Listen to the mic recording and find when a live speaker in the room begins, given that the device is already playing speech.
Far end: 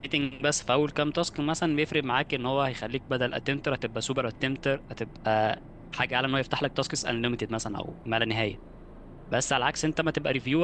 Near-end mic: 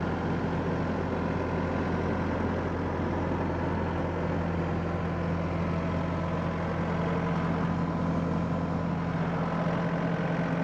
none

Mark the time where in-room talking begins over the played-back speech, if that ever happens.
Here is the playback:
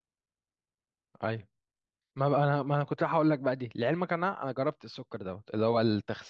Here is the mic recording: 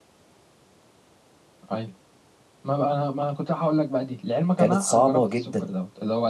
4.6 s

